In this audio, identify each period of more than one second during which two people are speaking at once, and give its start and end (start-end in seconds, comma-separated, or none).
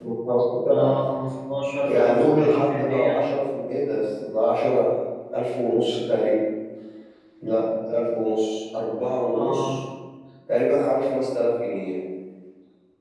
1.8-3.2